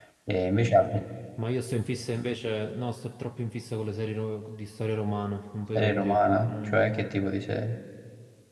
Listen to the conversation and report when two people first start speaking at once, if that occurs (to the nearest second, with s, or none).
6 s